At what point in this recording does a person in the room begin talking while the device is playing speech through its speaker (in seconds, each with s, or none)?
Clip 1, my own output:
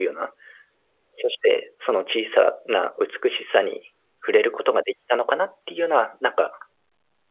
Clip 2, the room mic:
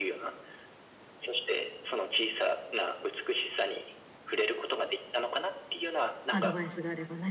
6.3 s